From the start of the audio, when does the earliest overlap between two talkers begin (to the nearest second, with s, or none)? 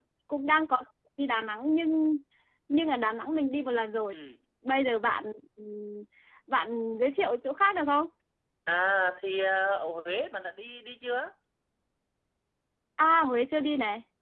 none